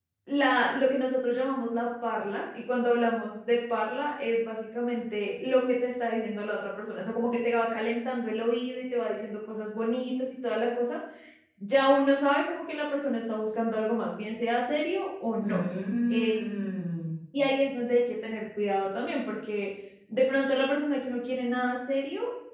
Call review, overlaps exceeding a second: none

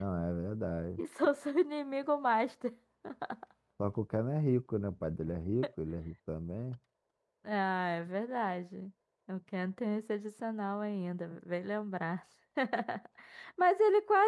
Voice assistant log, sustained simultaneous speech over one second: none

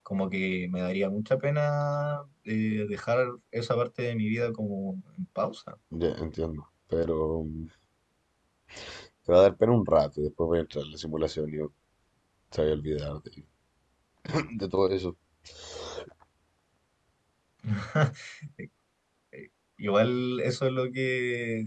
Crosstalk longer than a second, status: none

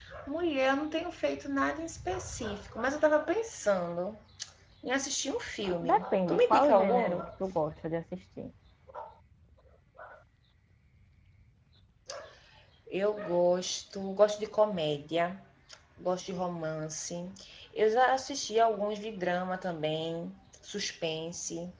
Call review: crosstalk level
present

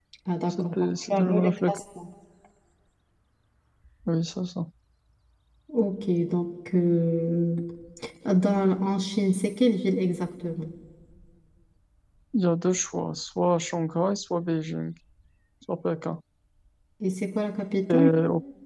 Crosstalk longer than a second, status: present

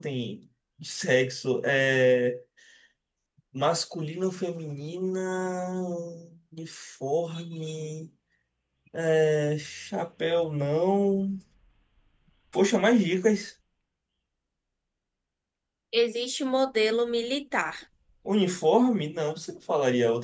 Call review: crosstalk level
none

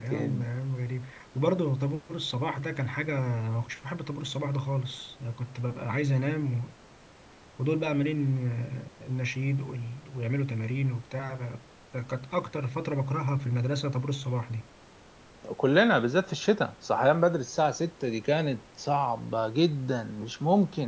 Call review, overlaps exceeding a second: none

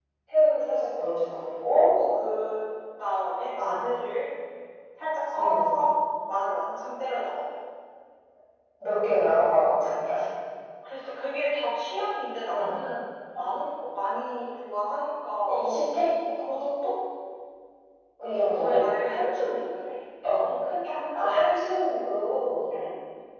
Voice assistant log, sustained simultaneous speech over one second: none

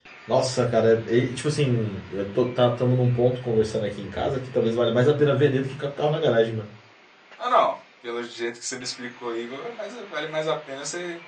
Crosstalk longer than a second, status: none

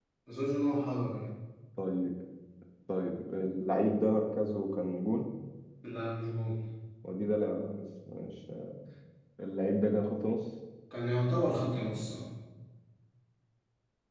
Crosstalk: none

